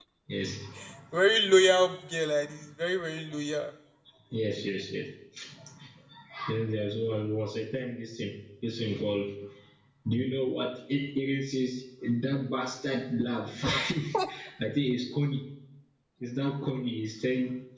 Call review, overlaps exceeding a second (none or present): none